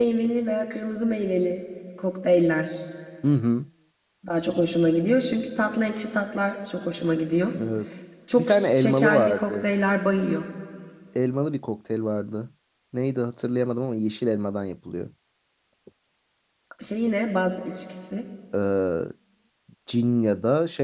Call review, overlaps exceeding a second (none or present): present